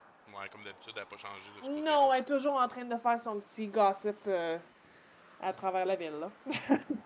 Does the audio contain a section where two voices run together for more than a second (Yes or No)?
No